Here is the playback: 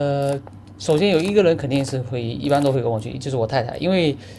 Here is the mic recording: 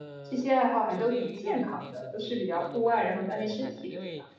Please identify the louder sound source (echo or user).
user